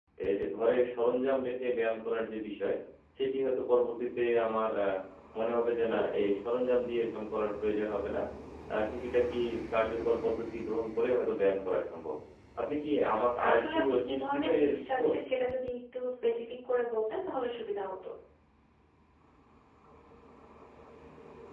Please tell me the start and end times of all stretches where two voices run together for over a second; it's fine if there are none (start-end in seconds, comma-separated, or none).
13.1-15.1